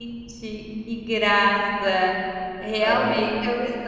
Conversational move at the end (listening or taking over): listening